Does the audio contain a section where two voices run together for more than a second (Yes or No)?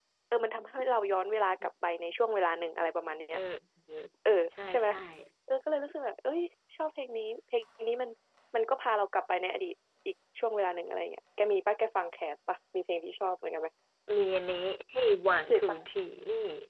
No